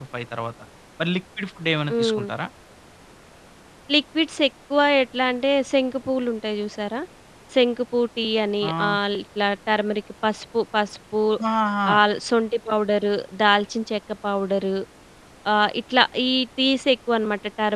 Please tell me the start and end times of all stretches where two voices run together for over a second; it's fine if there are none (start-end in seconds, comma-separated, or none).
none